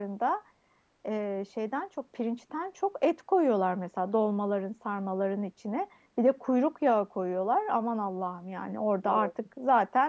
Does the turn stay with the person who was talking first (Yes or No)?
Yes